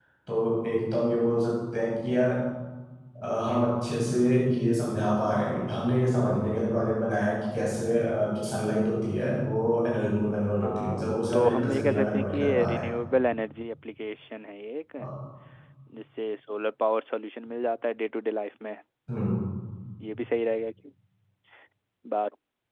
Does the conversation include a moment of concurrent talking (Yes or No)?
Yes